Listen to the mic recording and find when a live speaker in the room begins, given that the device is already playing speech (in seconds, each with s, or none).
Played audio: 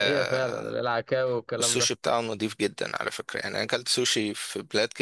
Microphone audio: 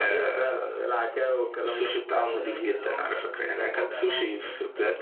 2.1 s